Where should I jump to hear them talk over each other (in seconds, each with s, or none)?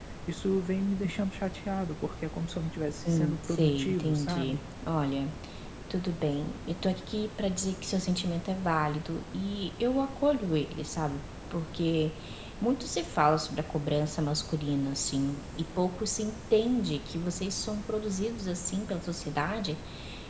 3.0 s